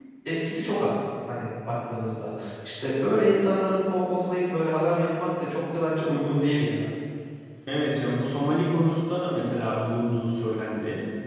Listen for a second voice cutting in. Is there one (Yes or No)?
No